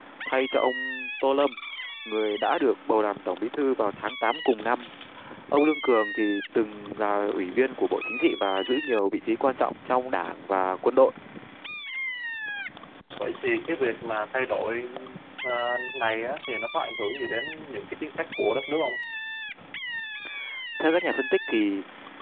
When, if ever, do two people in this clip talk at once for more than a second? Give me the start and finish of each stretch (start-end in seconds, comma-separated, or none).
none